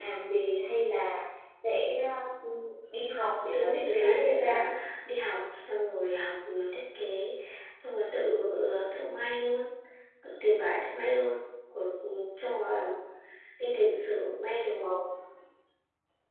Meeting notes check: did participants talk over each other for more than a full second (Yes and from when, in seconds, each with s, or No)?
Yes, from 3.2 s